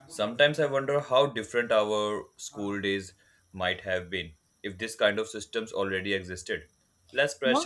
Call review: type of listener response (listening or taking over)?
listening